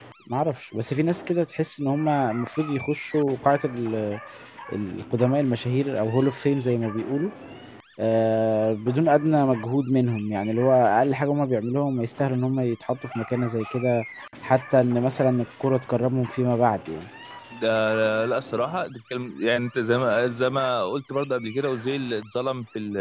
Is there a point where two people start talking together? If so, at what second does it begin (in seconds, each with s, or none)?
none